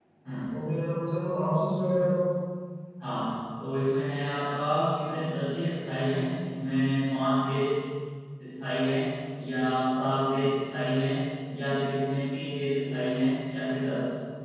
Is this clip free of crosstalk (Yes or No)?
Yes